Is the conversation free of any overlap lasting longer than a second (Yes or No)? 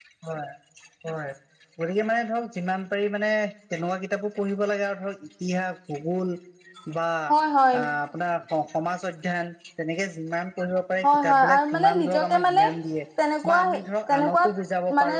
No